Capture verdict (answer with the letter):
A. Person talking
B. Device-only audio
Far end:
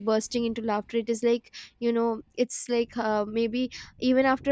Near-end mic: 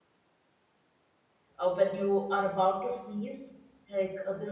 A